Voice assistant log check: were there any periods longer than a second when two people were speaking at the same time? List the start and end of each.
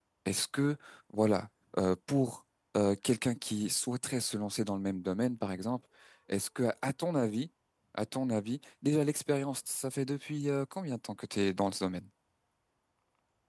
none

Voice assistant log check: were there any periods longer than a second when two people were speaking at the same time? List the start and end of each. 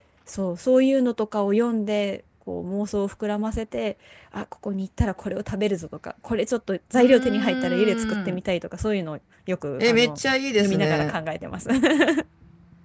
6.9-8.4

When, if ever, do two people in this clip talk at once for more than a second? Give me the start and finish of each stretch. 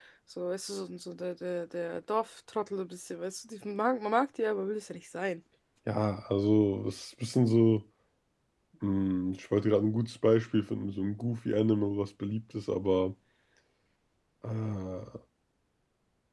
none

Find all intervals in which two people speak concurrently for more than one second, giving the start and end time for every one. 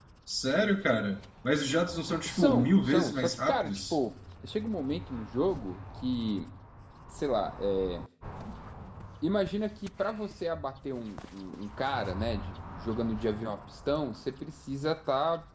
2.3-4.0

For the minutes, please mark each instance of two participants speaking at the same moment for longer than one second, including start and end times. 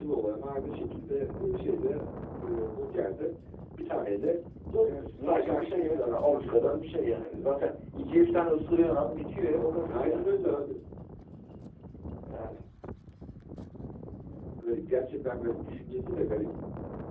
4.8-6.5

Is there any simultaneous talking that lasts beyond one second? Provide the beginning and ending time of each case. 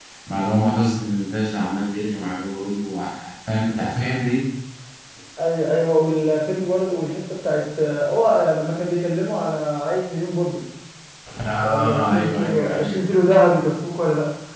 11.6-13.0

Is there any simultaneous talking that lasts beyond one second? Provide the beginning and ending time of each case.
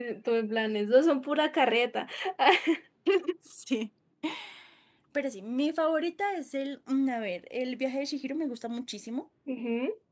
none

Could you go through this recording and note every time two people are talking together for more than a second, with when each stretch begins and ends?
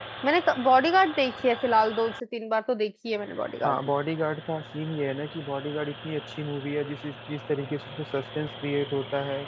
none

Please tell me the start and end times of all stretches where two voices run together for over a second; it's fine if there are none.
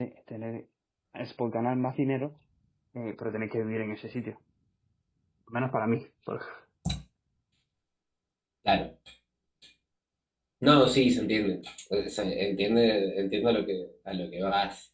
none

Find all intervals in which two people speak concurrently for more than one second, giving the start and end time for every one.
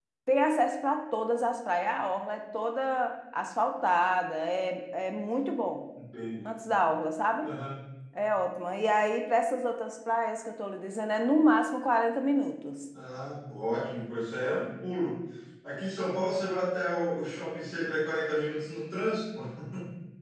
none

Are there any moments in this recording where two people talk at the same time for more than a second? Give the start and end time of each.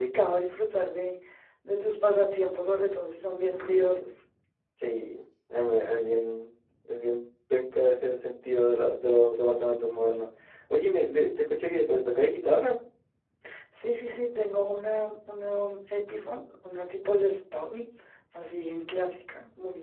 none

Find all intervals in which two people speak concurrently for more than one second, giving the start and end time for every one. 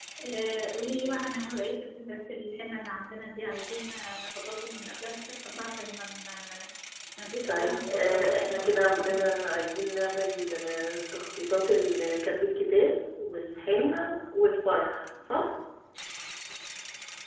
7.5-9.3

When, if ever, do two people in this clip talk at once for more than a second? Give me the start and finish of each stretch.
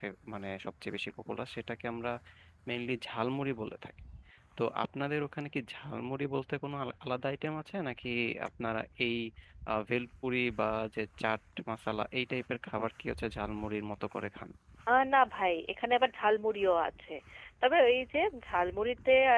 none

